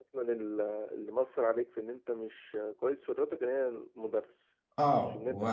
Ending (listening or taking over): taking over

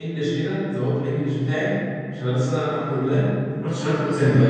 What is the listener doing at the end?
taking over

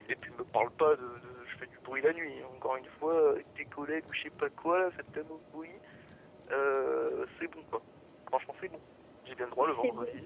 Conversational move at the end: listening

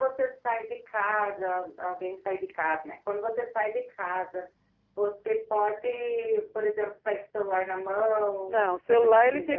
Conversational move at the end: taking over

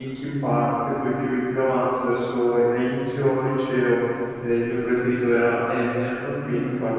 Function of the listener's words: taking over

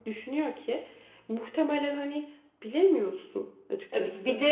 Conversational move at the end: taking over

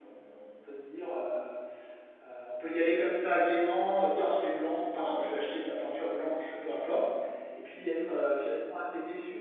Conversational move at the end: listening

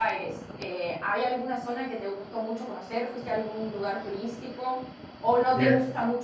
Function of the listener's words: listening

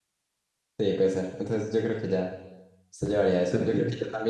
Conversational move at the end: listening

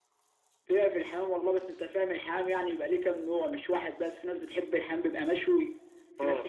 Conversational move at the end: listening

